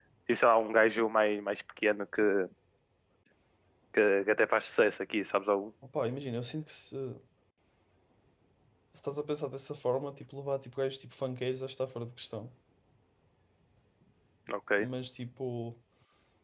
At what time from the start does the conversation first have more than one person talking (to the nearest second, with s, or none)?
none